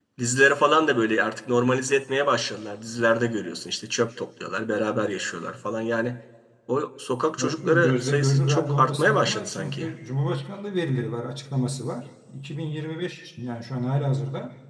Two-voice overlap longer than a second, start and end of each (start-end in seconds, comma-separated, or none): 7.4-9.9